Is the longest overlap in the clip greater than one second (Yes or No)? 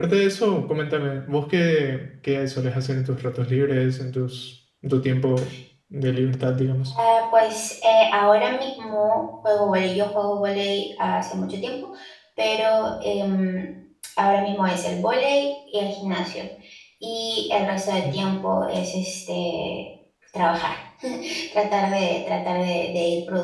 No